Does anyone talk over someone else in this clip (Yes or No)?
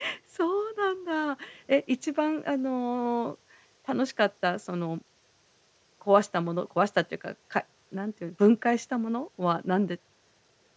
No